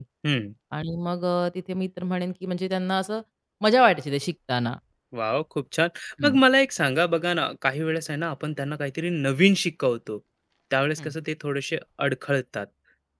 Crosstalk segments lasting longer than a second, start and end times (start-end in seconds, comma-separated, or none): none